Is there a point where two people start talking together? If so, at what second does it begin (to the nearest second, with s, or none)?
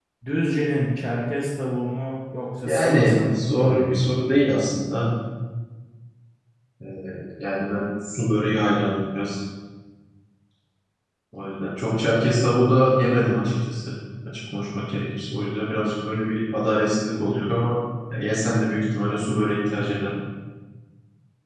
3 s